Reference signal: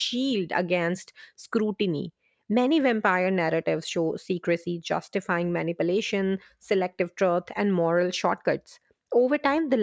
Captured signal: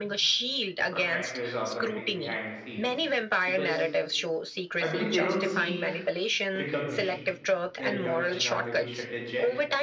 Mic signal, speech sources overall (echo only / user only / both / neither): both